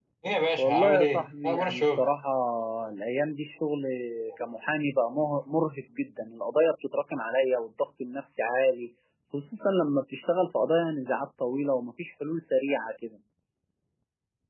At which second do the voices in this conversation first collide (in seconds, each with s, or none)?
0.6 s